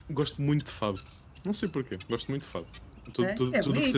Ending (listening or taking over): taking over